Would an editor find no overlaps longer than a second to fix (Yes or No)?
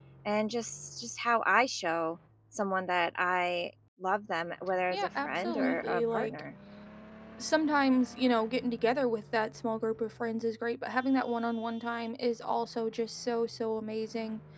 No